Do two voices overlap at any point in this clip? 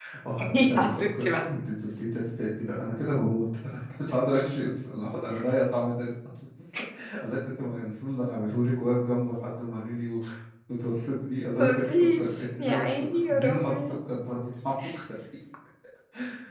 Yes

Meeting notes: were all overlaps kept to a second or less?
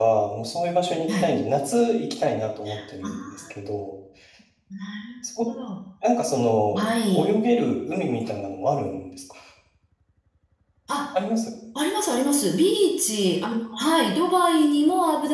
Yes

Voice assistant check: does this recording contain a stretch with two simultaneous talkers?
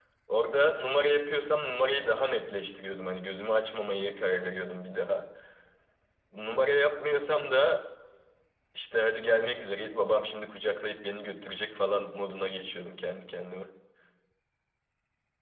No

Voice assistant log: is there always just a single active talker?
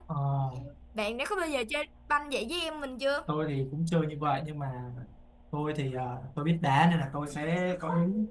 Yes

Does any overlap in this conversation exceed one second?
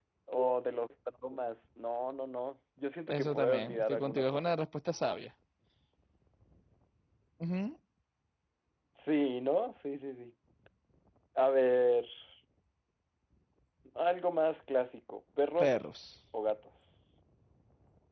Yes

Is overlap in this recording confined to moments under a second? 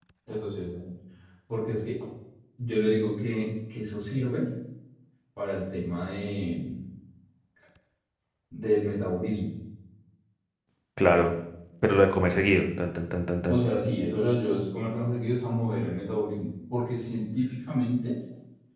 Yes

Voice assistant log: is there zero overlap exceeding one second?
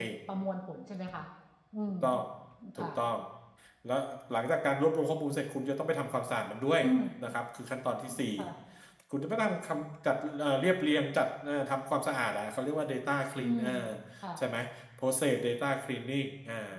Yes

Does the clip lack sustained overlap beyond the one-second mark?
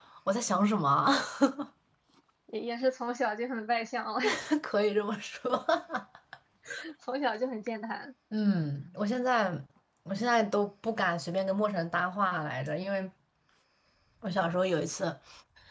Yes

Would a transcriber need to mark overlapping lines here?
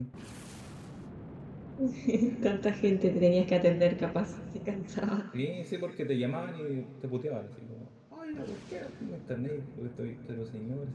No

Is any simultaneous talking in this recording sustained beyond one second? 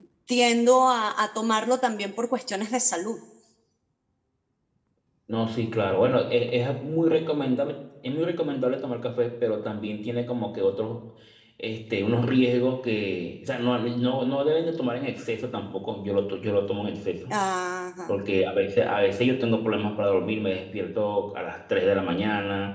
No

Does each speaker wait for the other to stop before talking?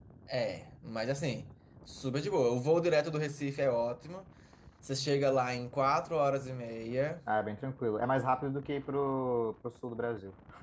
Yes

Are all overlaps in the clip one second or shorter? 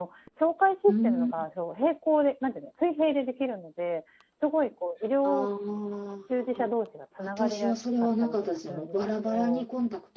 No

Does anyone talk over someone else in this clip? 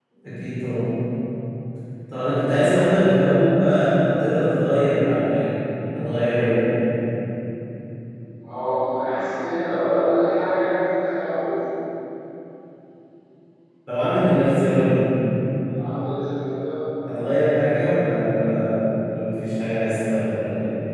No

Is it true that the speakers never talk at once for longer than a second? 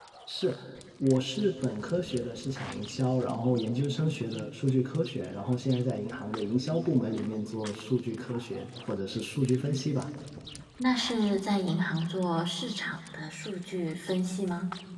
Yes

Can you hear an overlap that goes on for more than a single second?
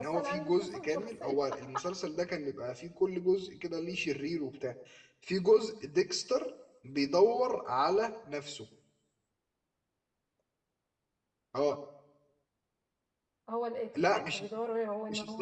Yes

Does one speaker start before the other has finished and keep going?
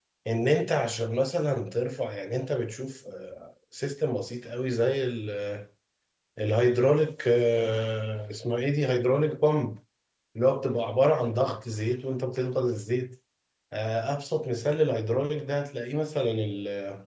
No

